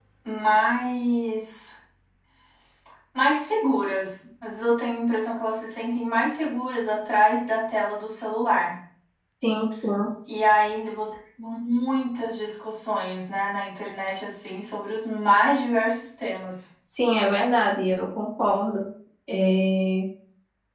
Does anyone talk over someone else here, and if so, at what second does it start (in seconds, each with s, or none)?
none